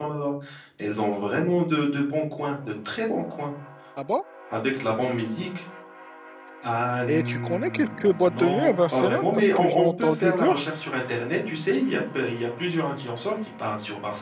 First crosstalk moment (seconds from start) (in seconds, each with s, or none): 7.1 s